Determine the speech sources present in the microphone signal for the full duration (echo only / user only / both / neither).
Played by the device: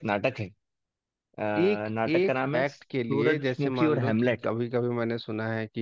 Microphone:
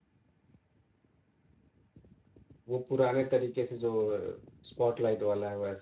user only